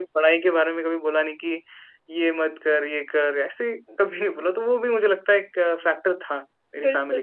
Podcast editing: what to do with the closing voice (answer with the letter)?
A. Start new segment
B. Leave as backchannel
A